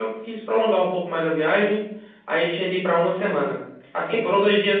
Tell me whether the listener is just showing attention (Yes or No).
Yes